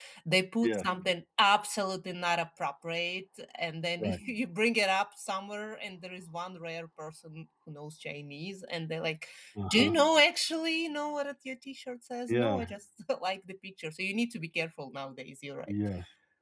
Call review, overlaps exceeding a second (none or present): none